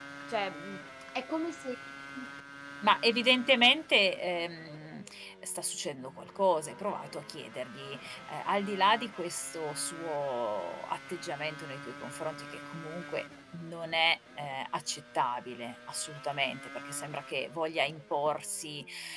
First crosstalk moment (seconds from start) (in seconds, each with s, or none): none